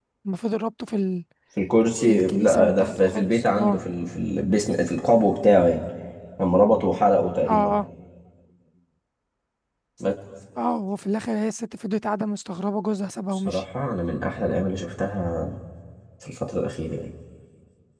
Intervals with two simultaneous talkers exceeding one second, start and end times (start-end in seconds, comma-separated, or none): 2.0-3.8